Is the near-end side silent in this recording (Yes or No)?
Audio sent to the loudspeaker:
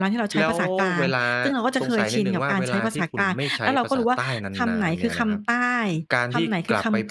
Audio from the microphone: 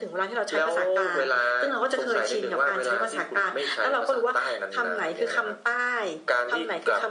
Yes